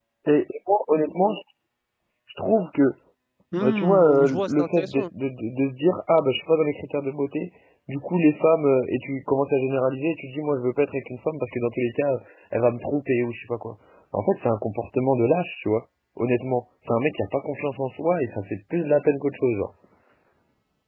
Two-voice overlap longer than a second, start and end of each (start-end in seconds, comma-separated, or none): 3.6-5.0